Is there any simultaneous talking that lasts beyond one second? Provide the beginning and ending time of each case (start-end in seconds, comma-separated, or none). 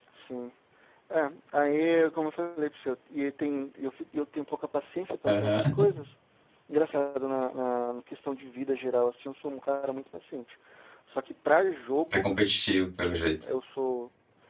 none